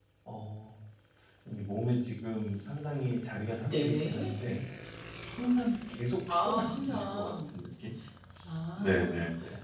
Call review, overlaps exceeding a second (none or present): present